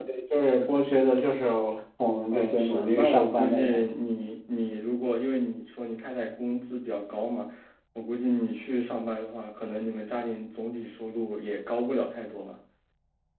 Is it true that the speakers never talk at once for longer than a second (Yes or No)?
No